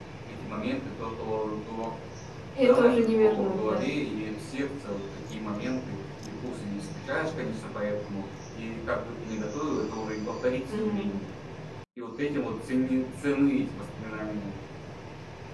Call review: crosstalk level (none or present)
present